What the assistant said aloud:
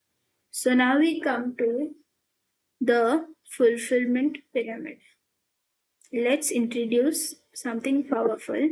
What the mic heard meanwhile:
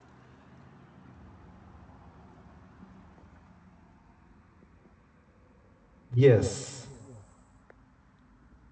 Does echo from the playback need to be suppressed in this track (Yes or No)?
No